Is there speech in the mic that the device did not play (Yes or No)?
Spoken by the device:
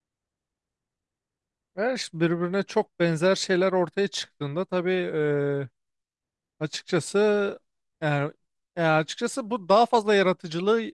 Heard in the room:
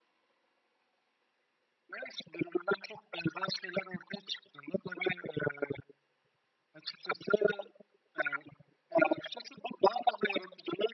No